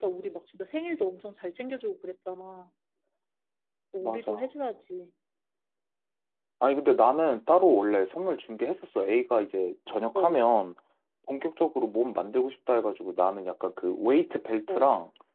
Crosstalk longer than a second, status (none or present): none